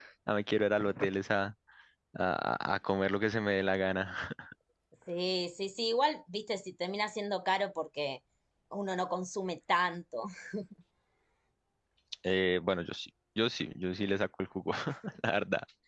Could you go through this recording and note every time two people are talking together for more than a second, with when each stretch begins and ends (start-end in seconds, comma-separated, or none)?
none